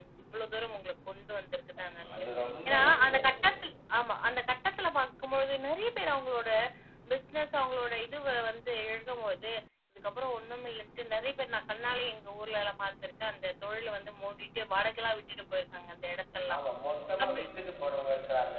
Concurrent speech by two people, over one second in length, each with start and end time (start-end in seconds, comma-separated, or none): 1.8-3.2